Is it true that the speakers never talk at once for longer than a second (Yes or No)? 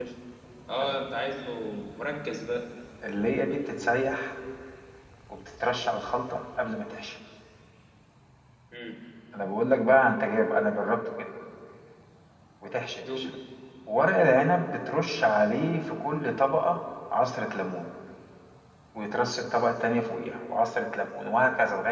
Yes